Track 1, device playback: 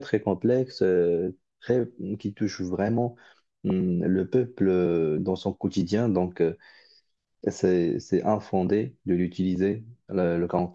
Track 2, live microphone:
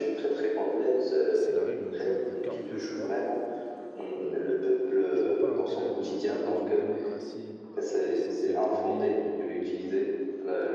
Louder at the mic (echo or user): echo